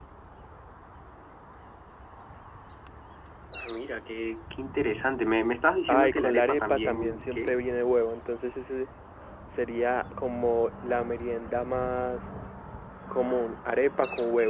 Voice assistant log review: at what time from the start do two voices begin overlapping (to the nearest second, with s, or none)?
6 s